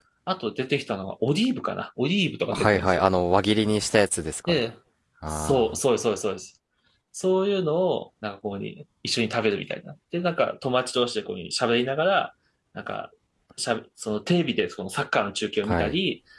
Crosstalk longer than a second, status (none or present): none